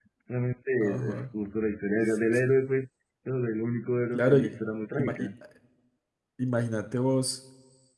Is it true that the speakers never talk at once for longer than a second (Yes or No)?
Yes